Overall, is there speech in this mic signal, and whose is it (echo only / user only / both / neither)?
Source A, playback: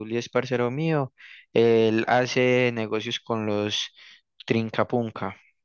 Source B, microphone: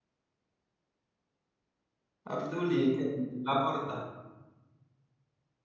user only